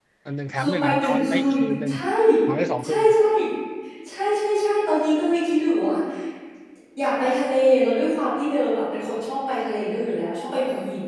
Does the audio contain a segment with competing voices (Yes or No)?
Yes